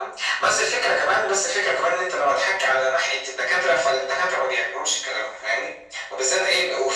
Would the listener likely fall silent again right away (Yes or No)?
Yes